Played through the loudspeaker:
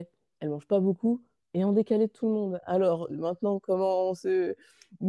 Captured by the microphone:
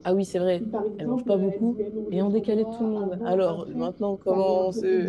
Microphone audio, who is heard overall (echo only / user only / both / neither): both